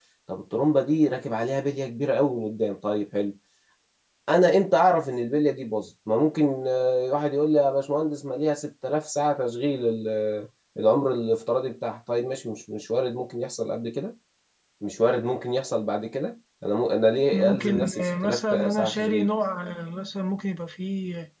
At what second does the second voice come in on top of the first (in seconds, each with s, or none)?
17.3 s